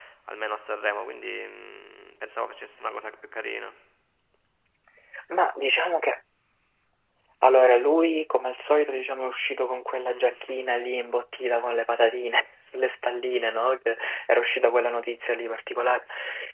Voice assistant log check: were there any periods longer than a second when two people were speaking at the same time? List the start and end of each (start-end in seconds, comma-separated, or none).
none